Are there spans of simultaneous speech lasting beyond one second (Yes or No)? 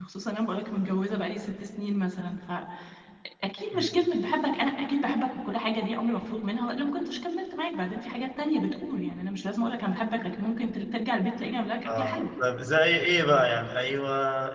No